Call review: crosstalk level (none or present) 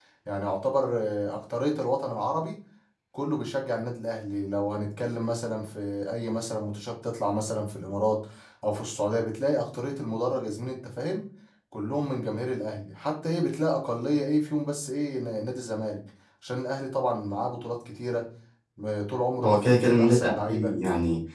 present